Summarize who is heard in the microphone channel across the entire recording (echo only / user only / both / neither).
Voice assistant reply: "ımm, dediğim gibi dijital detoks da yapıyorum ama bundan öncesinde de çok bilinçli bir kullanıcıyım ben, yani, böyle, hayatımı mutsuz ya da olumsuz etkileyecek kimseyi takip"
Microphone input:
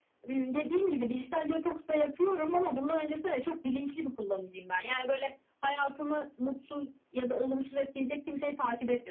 echo only